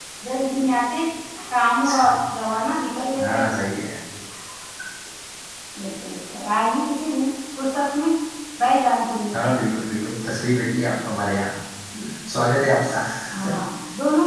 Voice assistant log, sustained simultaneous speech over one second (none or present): none